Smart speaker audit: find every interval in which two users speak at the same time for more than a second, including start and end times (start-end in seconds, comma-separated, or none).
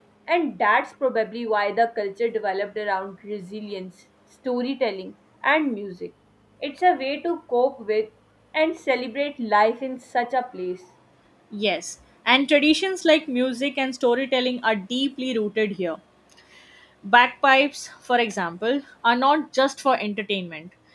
none